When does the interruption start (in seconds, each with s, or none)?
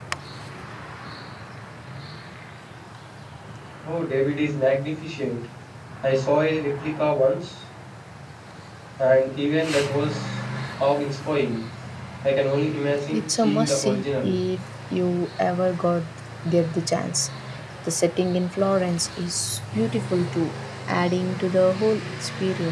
13.1 s